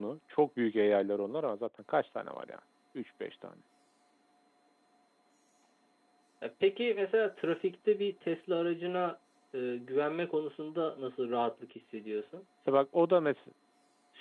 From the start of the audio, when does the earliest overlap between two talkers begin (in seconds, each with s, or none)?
none